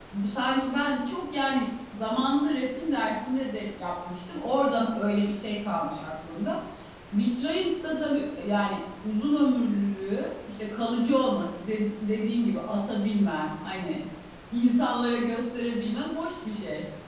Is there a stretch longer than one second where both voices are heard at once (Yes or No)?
No